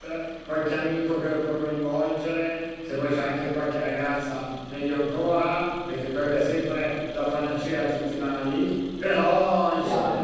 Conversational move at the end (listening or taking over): listening